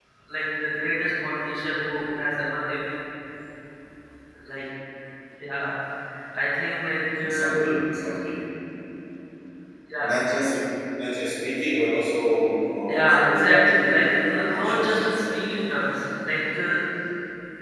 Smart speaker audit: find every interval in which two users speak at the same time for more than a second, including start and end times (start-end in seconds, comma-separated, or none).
12.9-15.2